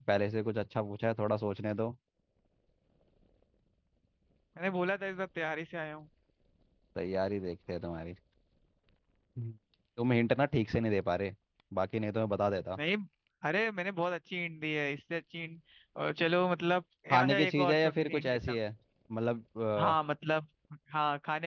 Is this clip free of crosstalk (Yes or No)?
No